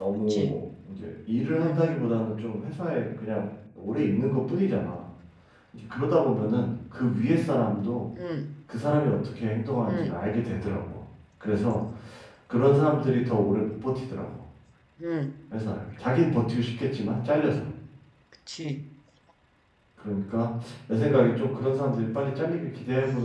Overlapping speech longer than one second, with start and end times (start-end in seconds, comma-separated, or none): none